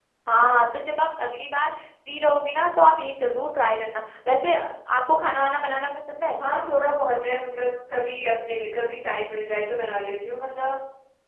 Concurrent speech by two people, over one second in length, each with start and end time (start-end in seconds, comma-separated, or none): none